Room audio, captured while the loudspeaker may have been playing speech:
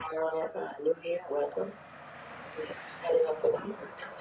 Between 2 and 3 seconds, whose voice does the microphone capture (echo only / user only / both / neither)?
echo only